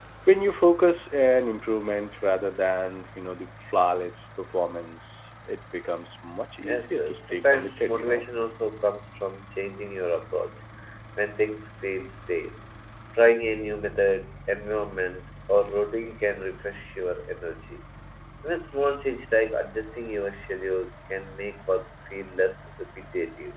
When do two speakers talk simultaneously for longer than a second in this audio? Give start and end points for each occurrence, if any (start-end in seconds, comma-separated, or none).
6.7-8.2